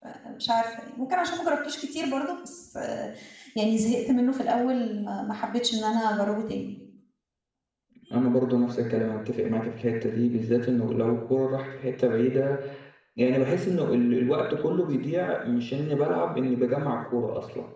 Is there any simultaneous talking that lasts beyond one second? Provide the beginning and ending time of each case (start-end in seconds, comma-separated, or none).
none